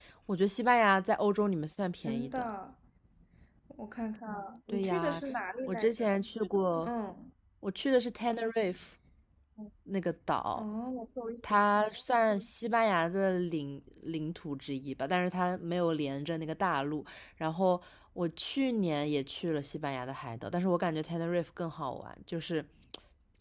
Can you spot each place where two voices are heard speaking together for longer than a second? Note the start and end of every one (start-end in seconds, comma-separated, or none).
none